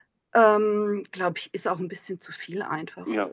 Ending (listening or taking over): taking over